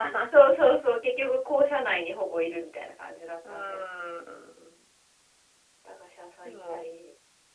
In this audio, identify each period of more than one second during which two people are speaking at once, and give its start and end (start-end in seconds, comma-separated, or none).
none